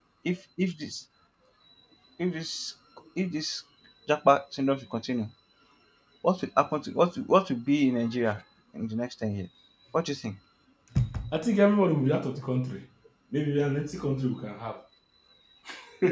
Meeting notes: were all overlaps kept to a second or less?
Yes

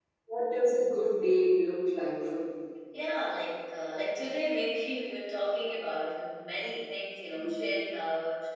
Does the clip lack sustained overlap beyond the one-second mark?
Yes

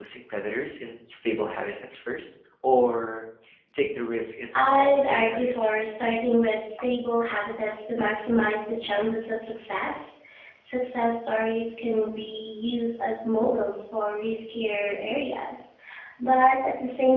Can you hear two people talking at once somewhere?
Yes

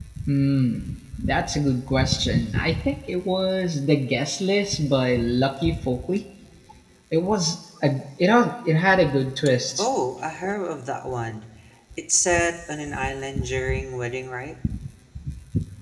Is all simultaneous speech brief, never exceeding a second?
Yes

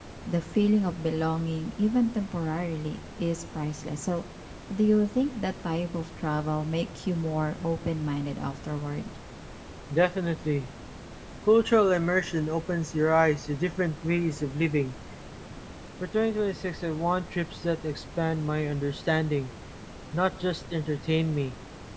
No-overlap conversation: Yes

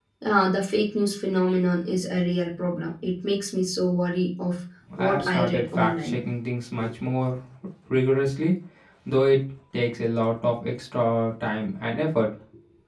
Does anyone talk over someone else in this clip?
Yes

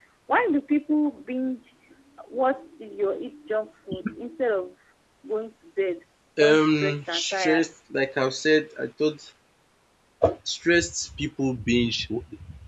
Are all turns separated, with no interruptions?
No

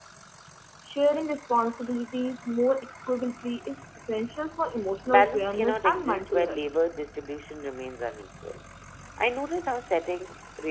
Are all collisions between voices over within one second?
No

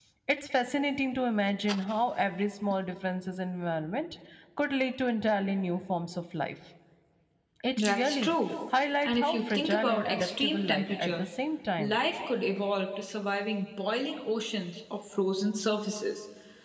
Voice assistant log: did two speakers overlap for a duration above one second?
Yes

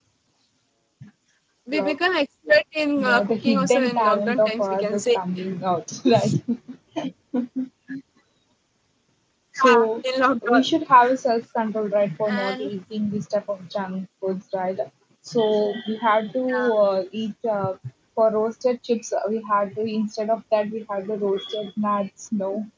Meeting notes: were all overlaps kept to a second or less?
No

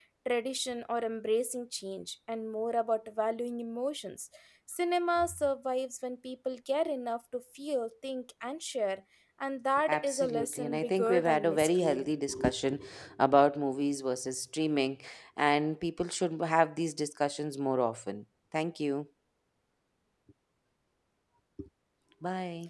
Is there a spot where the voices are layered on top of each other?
Yes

